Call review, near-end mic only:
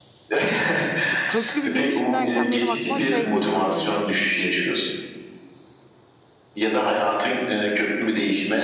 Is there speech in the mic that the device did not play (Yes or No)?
Yes